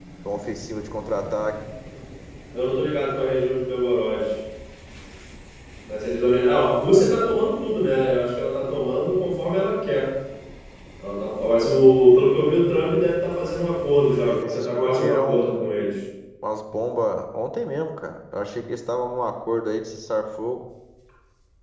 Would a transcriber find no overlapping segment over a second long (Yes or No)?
No